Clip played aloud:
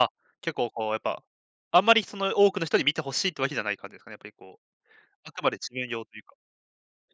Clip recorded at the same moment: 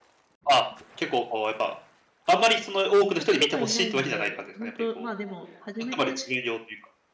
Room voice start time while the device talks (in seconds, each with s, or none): 3.1 s